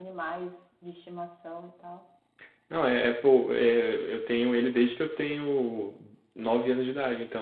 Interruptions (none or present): none